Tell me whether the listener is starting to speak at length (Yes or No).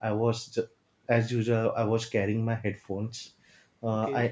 No